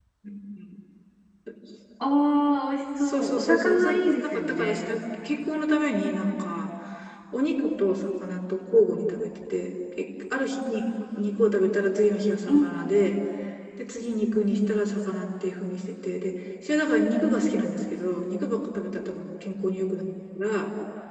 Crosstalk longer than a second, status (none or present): present